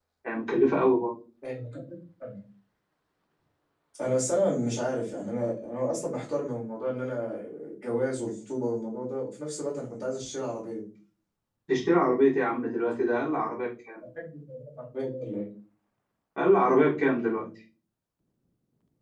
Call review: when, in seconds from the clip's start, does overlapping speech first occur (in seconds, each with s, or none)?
none